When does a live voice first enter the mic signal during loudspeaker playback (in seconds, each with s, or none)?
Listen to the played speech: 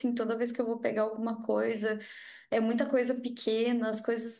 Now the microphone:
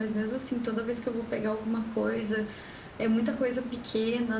none